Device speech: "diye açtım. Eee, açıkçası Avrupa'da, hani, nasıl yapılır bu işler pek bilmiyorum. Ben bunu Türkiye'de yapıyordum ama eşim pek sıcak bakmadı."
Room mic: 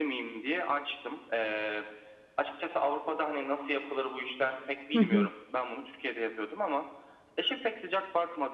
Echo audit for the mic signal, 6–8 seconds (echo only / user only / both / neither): echo only